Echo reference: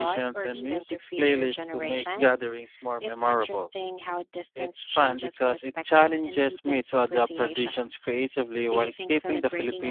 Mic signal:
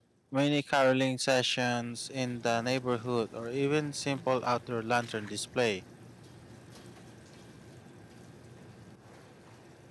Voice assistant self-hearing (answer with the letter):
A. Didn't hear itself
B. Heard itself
A